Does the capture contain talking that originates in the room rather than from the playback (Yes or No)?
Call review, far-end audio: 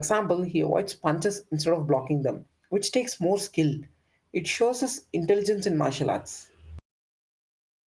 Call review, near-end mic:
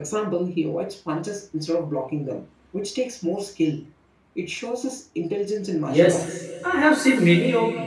Yes